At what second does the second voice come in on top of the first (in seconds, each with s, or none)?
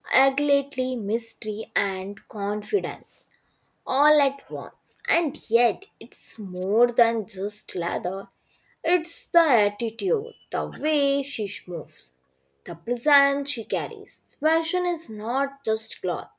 none